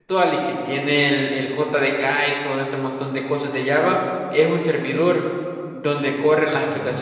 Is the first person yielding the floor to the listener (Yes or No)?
No